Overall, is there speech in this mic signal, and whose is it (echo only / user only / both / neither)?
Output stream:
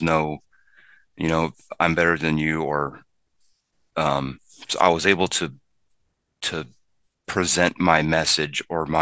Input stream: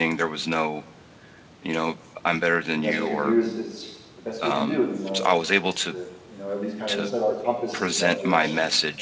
both